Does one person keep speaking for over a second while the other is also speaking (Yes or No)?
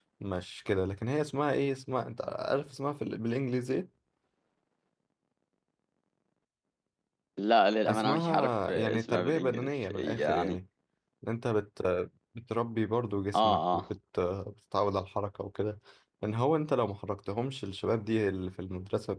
Yes